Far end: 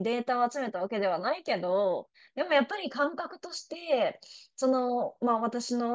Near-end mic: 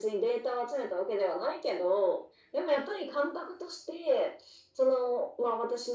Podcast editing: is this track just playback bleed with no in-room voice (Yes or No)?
Yes